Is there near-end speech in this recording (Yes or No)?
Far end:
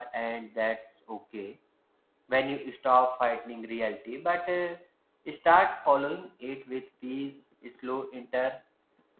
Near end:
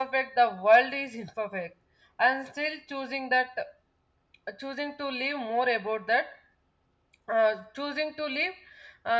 Yes